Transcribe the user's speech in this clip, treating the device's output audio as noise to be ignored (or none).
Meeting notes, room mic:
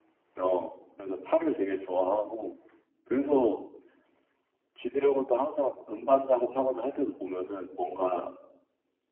none